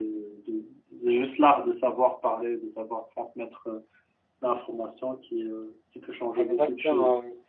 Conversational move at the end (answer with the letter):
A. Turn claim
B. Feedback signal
A